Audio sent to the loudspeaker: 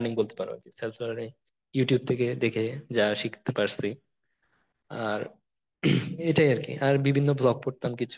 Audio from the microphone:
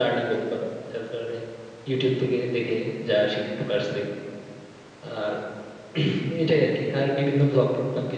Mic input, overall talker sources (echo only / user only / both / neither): echo only